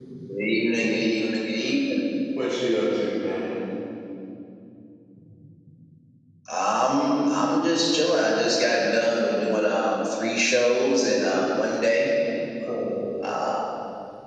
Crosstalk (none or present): none